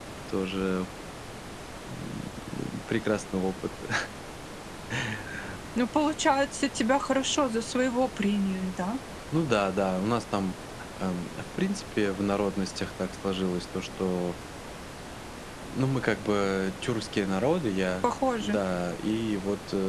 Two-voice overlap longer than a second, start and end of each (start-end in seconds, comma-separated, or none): none